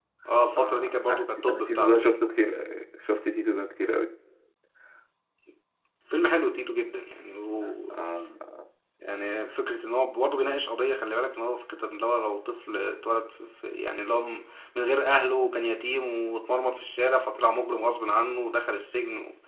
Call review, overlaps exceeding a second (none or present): present